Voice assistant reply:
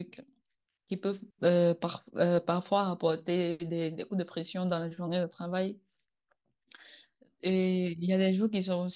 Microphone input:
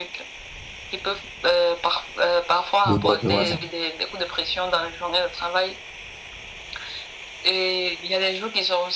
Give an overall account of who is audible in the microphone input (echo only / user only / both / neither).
both